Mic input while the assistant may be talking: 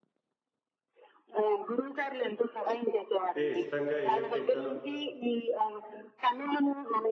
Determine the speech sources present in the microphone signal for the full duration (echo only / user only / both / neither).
both